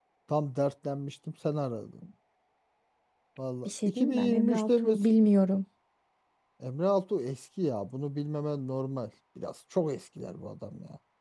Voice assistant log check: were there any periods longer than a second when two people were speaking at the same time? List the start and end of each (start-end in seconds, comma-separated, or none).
3.6-5.0